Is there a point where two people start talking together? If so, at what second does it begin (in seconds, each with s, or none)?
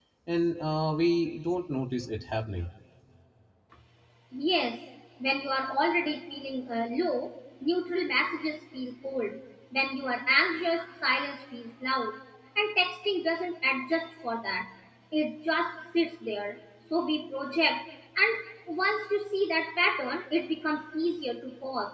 none